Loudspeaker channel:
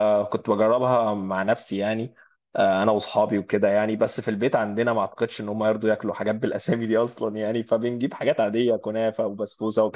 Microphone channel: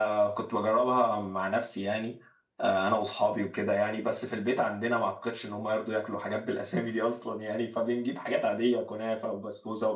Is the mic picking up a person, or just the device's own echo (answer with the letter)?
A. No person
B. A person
A